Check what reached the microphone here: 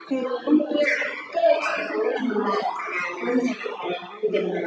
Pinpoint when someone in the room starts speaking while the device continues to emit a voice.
none

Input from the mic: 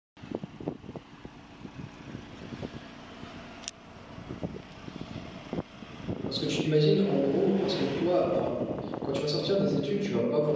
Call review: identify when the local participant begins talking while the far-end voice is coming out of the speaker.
6 s

